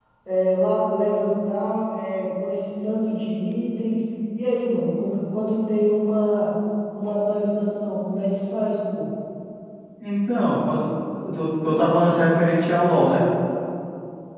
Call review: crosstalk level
none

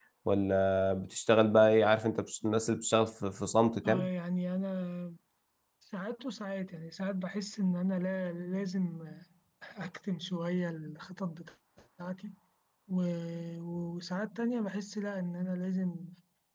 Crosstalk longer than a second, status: none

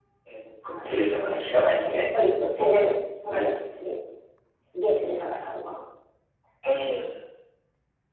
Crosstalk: present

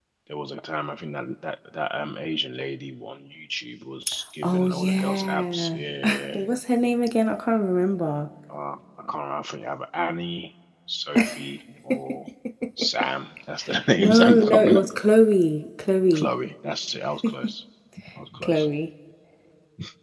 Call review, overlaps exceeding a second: present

